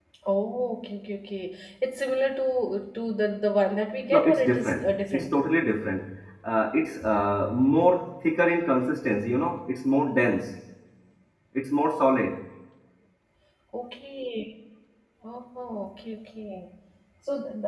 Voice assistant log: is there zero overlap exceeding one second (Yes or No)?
No